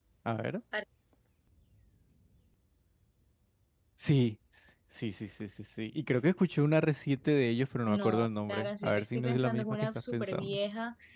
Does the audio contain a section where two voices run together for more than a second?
Yes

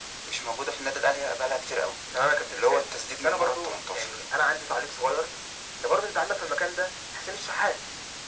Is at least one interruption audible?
Yes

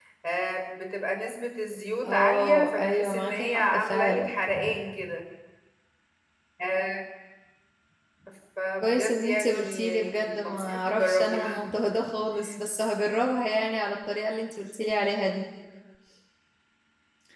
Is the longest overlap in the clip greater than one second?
Yes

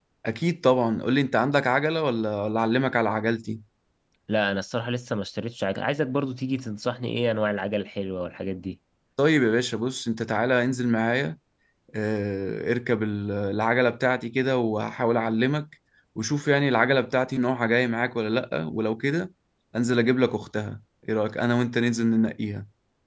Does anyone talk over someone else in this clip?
No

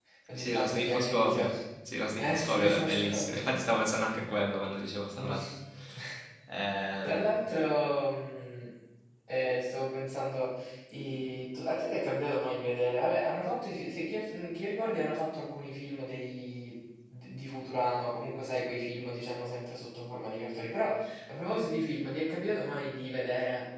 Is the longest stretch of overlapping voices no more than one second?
No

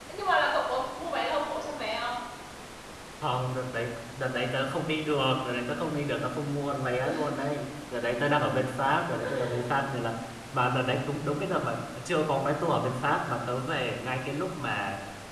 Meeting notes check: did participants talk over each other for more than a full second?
No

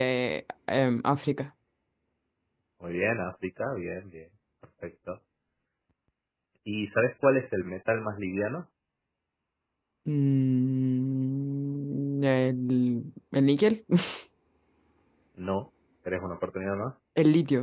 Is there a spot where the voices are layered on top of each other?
No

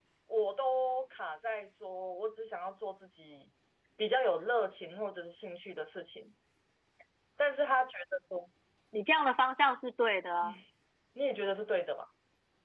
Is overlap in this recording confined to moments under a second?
Yes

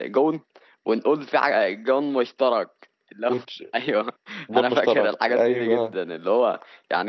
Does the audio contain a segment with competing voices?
Yes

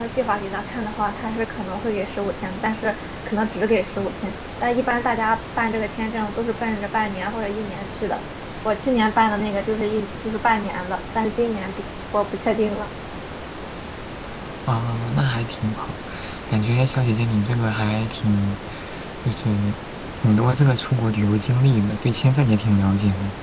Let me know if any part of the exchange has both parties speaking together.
No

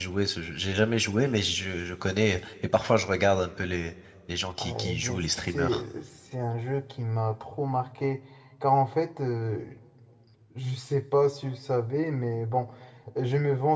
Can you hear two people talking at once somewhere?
Yes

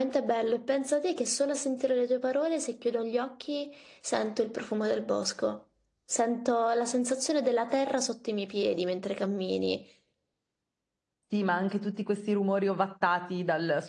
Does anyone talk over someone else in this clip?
No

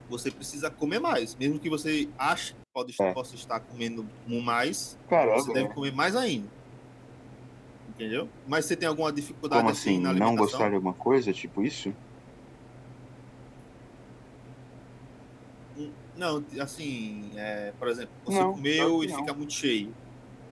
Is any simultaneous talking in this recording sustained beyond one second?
Yes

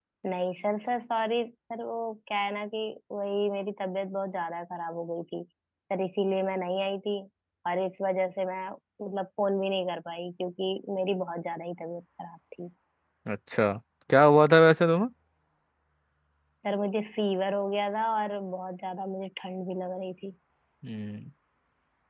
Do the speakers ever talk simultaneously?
No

